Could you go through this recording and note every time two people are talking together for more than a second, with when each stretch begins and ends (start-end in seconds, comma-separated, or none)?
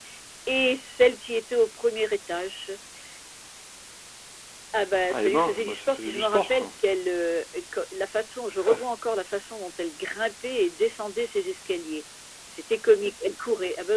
5.1-6.7